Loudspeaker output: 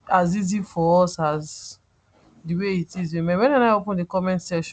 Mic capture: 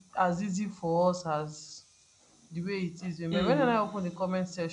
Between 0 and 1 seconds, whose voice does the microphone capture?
echo only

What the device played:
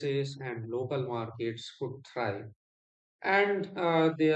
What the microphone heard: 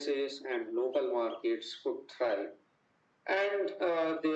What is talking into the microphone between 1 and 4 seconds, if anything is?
echo only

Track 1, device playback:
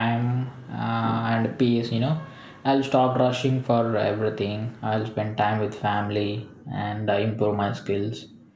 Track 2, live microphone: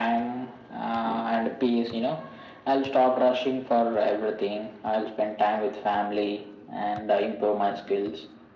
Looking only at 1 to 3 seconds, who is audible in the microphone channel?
echo only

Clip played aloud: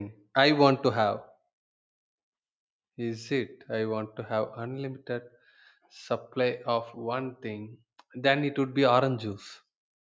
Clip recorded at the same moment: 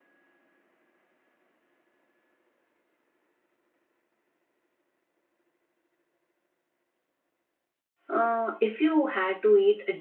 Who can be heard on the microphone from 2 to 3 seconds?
neither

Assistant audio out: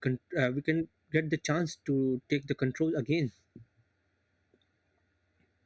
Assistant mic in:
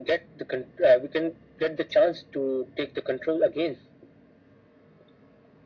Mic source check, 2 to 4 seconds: echo only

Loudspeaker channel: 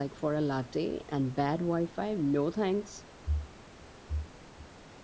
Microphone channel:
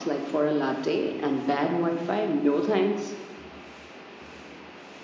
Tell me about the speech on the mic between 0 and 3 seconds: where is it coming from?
echo only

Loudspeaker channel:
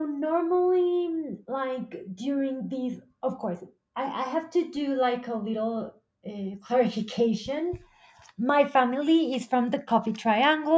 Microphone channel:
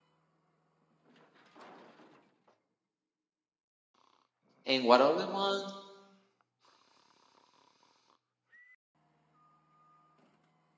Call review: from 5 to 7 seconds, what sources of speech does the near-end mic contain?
user only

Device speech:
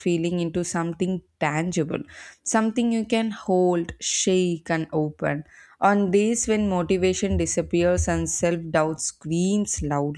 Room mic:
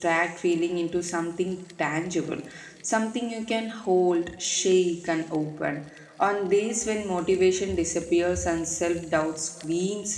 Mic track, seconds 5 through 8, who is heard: echo only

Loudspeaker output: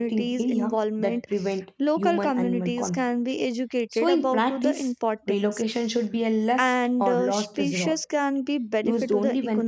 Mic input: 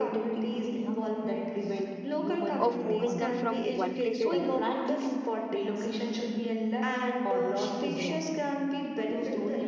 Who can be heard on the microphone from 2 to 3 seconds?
both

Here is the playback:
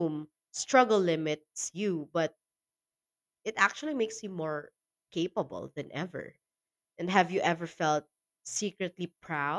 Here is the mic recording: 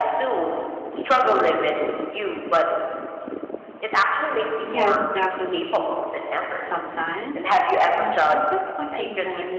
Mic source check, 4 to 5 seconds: both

